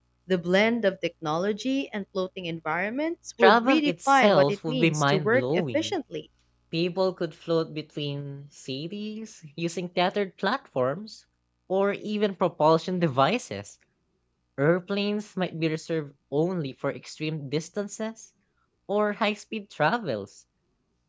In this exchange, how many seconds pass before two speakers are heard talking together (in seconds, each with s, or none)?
3.4 s